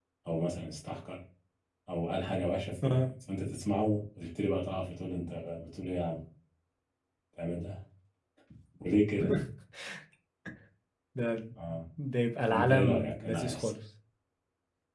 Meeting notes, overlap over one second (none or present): present